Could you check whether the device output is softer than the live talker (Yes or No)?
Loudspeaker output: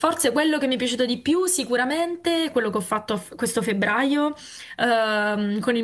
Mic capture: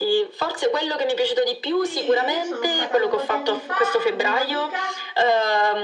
No